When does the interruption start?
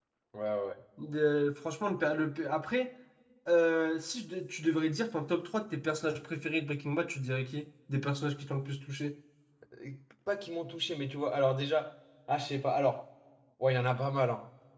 none

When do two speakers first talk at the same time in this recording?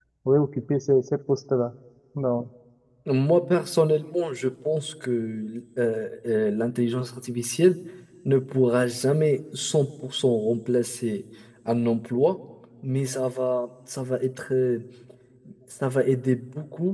none

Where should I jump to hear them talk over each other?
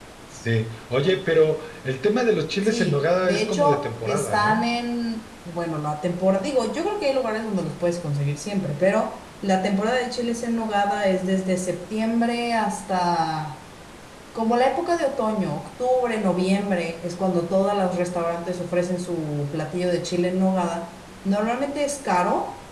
2.6 s

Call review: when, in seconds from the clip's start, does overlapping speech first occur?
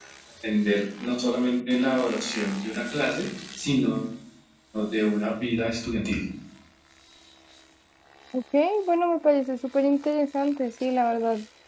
none

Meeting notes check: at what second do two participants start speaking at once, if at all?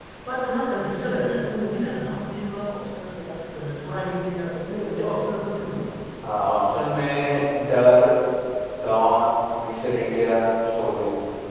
none

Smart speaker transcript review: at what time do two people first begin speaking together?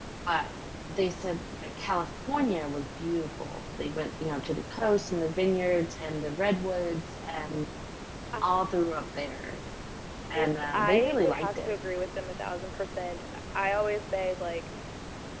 10.4 s

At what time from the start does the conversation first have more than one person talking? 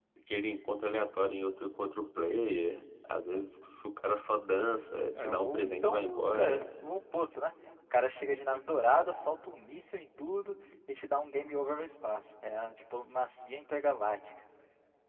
5.1 s

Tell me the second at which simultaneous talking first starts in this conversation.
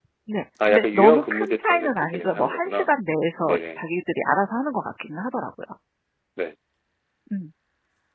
0.7 s

